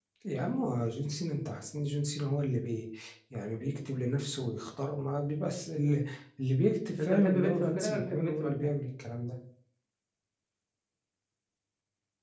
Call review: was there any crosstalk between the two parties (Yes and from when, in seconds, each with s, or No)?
Yes, from 7.0 s